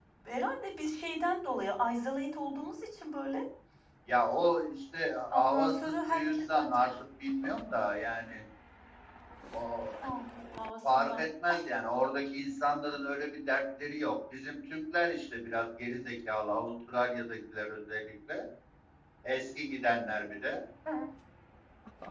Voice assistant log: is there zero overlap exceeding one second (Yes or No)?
No